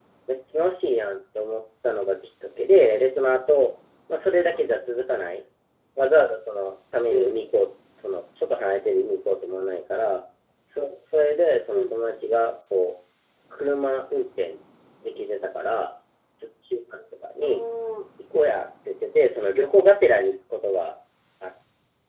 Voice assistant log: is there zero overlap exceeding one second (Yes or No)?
Yes